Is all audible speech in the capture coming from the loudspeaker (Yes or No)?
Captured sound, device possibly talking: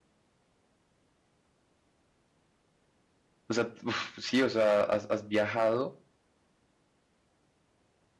No